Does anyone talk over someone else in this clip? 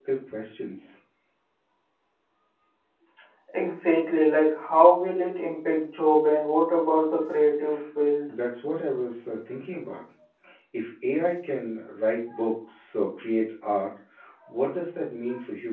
No

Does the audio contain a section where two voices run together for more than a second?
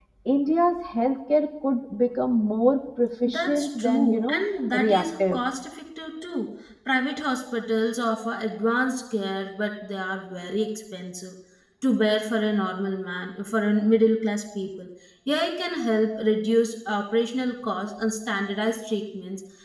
Yes, from 3.2 s

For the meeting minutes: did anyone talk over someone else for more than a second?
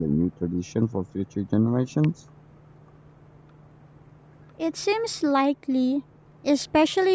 No

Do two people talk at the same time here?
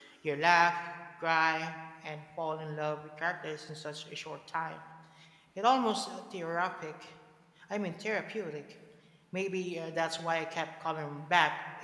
No

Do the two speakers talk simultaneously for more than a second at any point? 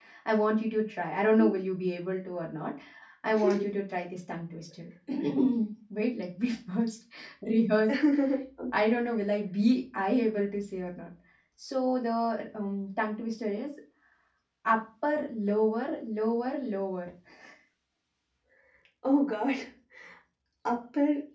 No

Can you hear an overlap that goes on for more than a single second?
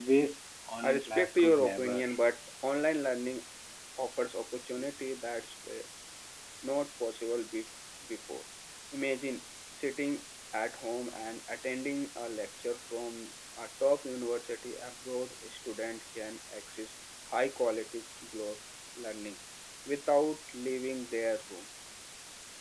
Yes, from 0.8 s

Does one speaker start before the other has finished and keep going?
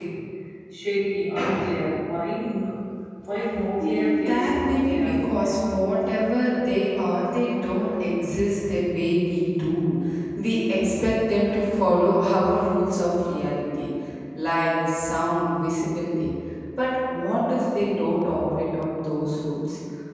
Yes, from 3.8 s

